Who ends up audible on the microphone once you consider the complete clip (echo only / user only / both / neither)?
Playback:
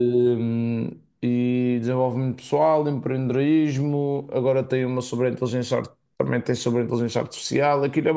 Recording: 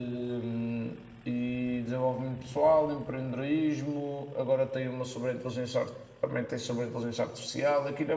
echo only